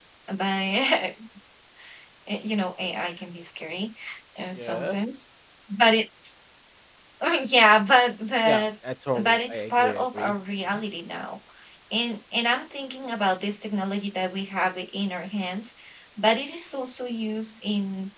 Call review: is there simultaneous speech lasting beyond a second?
Yes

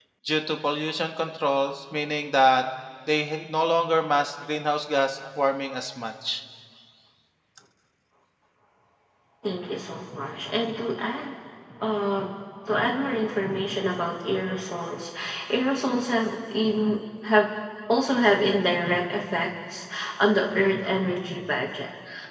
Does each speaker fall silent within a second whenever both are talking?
Yes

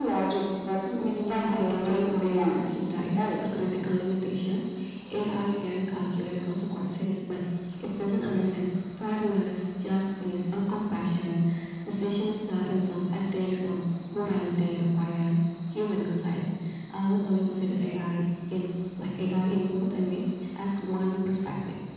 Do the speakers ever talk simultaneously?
Yes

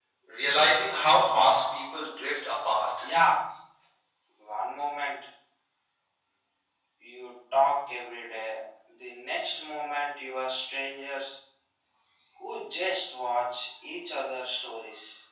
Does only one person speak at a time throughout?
Yes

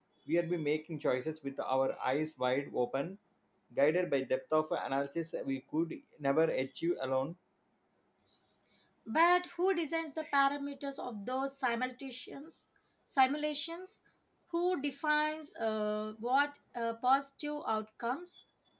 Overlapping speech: No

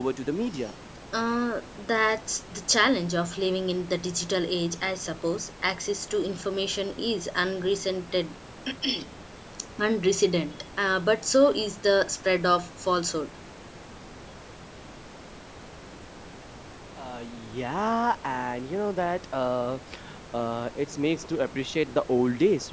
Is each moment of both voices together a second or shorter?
Yes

